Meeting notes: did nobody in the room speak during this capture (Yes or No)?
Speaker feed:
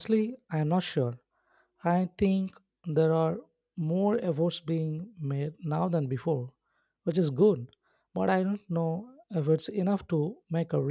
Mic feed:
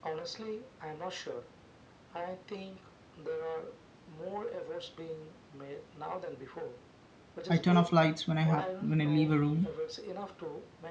No